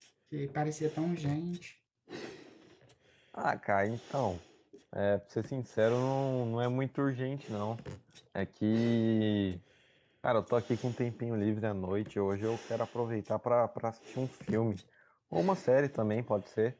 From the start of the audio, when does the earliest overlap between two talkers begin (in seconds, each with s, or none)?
none